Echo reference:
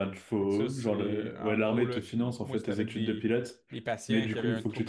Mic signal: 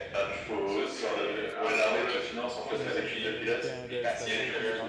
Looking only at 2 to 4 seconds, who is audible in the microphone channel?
both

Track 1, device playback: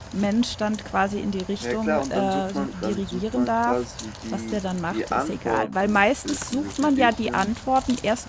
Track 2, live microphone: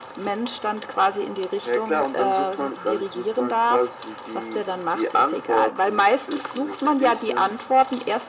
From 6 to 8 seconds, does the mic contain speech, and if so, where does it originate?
echo only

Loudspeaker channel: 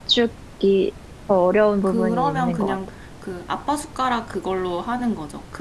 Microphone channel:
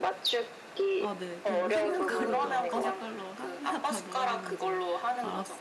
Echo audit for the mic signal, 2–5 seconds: both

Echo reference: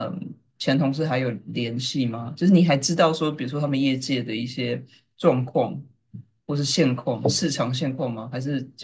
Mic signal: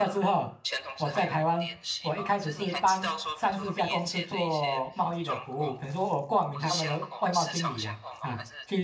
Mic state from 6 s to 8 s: both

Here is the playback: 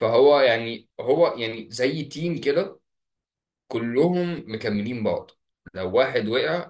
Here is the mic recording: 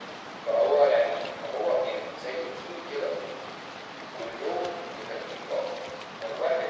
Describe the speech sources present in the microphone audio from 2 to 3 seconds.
echo only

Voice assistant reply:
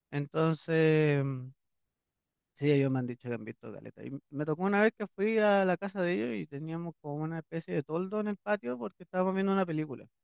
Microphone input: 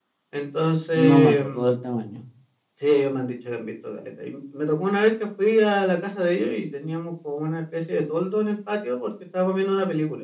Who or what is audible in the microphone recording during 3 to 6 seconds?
echo only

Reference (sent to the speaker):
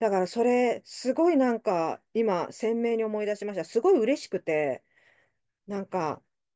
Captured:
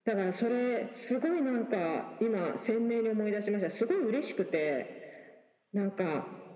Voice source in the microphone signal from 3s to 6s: echo only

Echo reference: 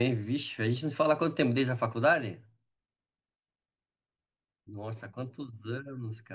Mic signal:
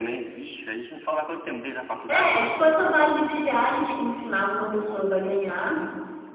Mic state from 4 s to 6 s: both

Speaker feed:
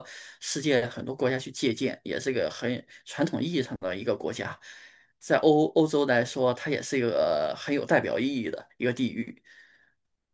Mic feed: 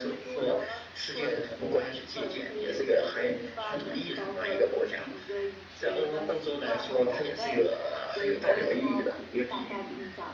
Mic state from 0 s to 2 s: both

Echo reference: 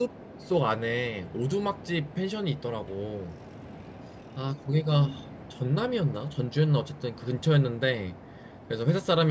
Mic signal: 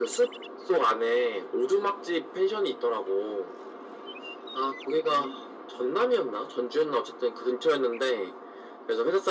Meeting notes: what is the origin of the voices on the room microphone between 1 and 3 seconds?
echo only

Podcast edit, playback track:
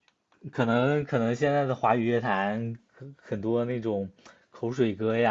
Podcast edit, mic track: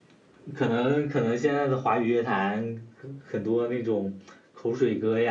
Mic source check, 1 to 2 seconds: echo only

